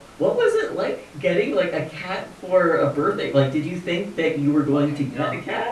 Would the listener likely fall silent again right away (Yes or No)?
No